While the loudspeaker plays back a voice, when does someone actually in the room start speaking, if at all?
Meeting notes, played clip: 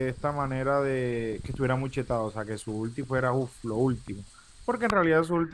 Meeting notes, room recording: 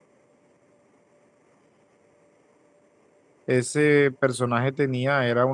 3.5 s

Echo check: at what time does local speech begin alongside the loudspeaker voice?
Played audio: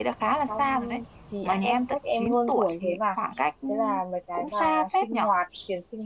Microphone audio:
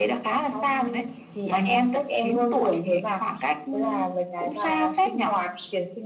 none

